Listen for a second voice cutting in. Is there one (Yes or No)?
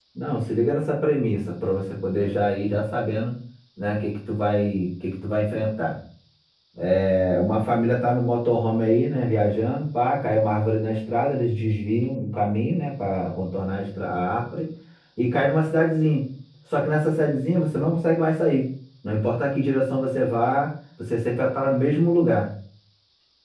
No